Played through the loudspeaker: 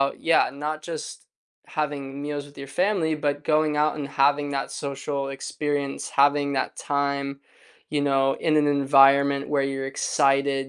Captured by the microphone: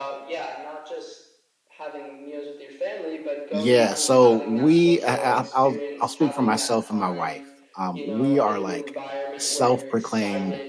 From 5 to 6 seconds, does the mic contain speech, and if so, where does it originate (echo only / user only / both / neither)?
both